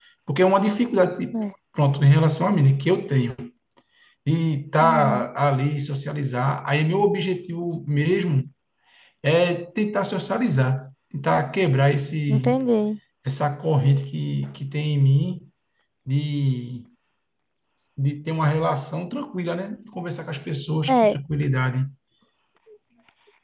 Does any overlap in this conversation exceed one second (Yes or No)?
No